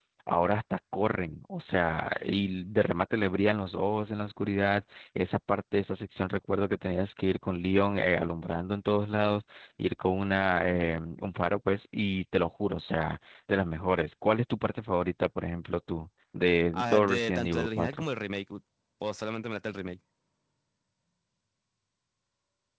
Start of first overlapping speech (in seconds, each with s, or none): 16.7 s